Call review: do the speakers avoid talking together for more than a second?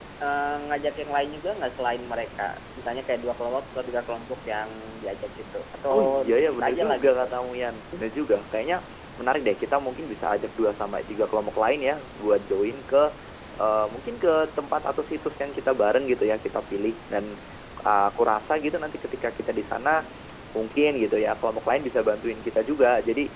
No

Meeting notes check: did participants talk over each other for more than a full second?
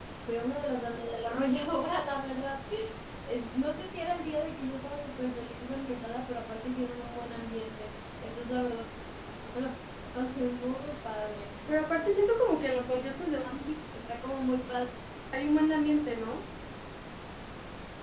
No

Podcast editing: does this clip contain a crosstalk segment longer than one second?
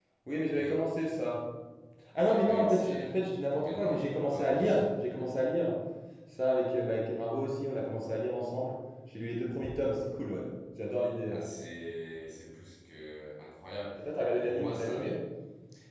Yes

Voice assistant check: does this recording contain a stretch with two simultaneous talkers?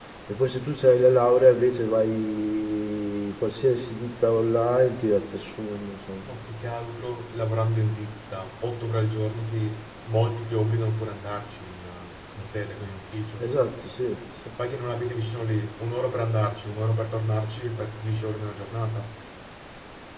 No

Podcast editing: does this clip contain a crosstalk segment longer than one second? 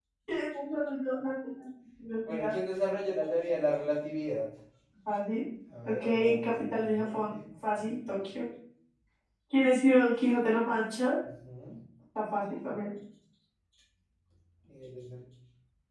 Yes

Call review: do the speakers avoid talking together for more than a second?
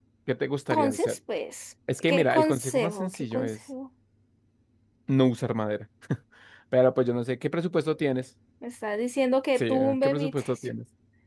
No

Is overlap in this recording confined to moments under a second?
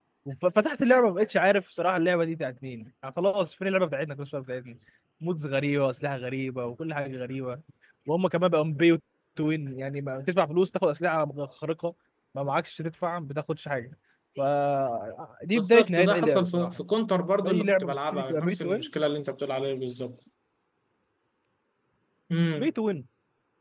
No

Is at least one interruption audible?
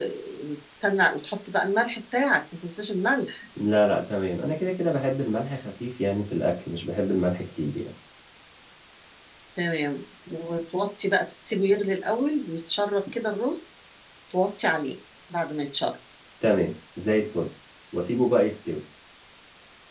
No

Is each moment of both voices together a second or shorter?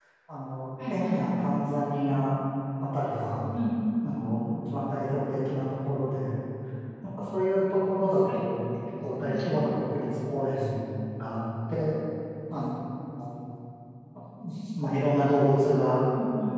Yes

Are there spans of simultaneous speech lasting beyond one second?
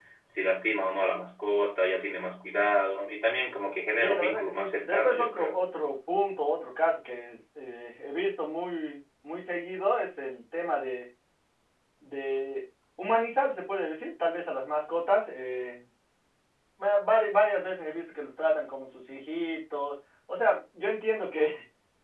Yes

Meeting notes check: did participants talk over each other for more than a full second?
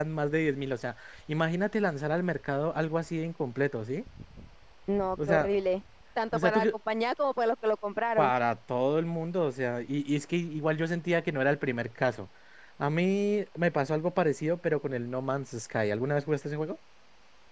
No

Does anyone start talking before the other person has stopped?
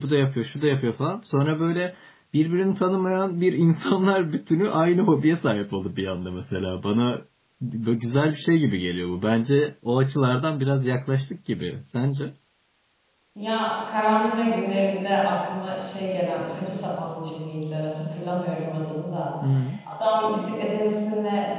No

